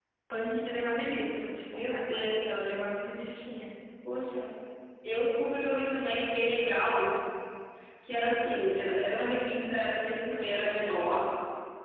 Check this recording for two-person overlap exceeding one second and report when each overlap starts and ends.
1.7-2.9

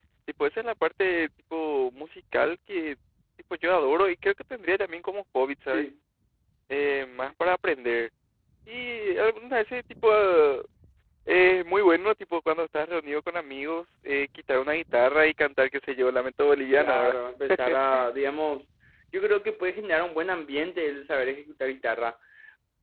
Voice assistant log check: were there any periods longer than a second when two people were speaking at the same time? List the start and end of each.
none

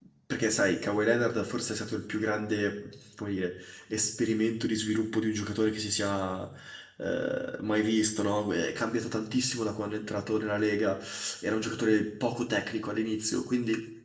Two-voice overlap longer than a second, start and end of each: none

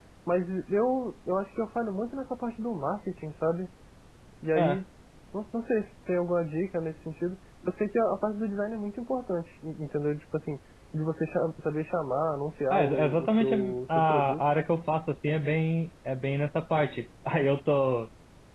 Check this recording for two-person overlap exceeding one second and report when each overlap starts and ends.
12.7-14.4

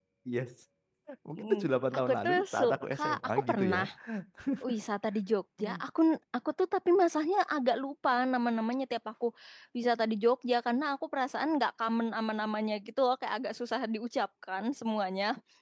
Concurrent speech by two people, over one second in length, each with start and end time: 2.1-3.8

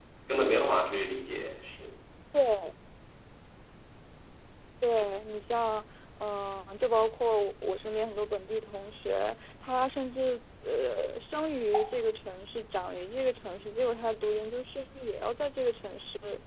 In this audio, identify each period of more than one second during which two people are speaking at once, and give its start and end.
none

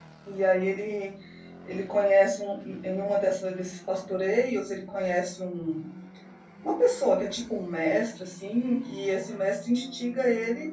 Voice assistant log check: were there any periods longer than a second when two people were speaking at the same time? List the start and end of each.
none

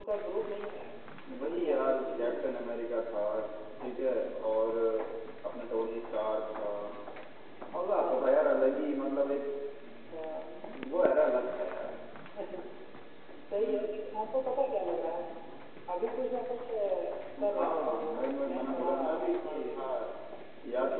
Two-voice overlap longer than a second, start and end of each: 1.4-2.7, 17.5-19.8

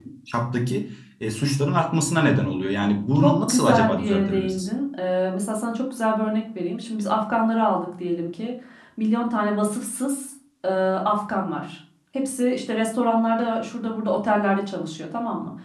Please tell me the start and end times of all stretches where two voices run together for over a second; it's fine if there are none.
3.1-4.7

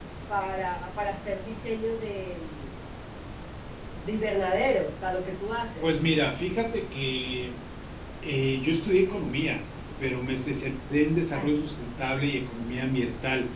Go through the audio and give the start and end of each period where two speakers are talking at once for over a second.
none

